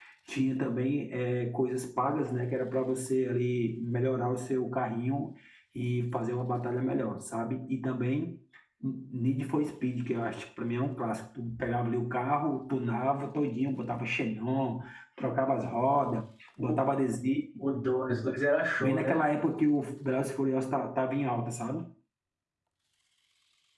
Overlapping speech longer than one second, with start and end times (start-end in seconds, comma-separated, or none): none